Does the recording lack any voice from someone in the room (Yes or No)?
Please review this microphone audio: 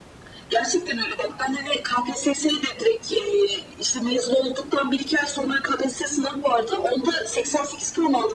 Yes